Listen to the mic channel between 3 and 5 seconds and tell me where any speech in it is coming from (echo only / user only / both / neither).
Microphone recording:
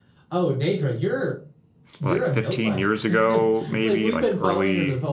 both